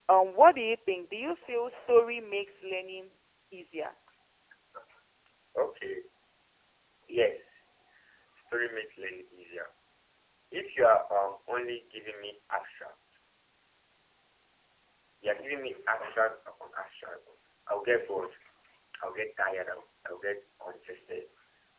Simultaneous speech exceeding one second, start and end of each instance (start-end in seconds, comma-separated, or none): none